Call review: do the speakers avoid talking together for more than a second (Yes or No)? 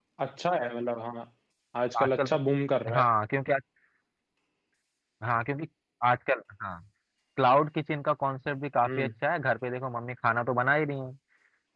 Yes